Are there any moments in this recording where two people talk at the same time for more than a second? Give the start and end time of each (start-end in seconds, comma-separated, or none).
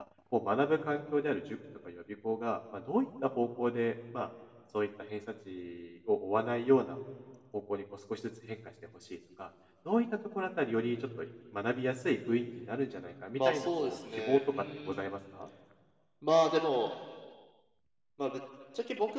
13.3-15.1